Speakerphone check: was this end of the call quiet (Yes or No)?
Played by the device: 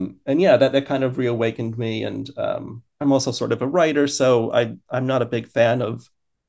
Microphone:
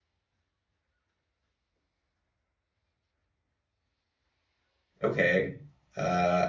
No